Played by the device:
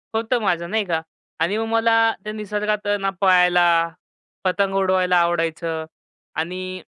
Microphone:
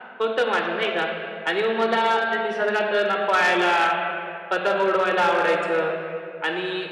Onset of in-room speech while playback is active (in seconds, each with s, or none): none